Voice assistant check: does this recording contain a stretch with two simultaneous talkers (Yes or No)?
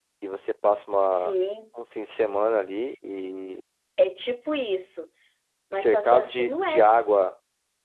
Yes